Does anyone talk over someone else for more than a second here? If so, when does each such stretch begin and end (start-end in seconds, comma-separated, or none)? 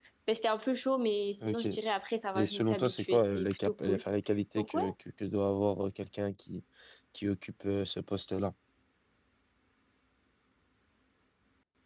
2.3-4.0